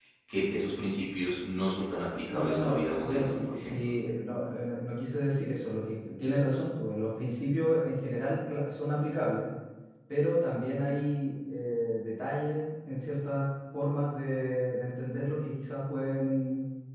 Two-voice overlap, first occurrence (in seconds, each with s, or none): 2.3 s